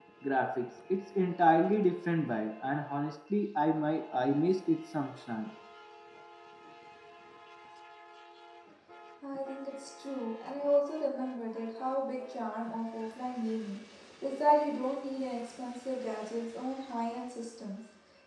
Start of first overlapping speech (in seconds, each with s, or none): none